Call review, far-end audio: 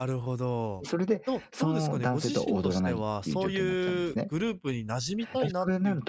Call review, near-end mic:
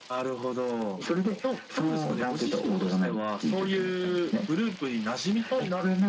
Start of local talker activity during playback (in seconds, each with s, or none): none